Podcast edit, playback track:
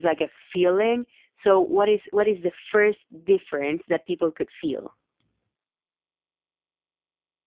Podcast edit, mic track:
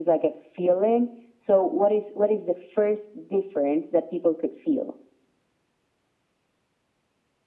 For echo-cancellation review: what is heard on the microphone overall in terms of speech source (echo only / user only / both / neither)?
echo only